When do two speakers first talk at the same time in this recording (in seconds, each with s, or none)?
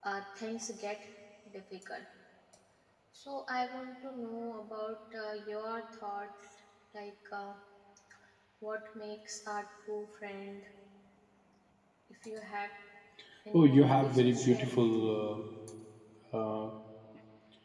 13.5 s